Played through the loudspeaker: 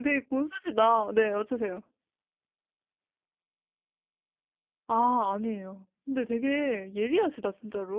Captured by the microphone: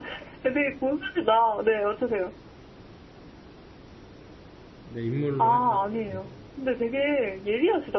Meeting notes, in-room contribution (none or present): present